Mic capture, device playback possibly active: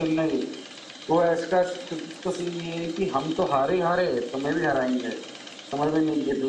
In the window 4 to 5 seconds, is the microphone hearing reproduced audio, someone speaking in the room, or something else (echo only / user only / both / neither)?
echo only